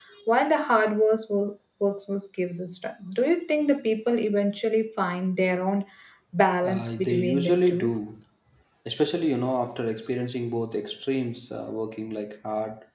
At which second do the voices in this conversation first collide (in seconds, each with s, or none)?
6.6 s